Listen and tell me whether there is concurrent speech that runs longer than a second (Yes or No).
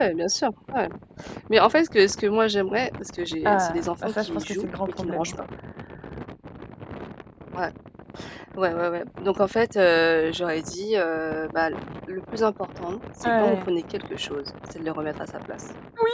Yes